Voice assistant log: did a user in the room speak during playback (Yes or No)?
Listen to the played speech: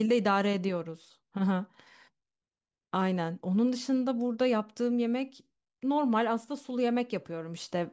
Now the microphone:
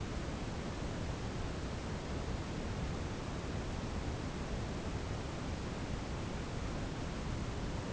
No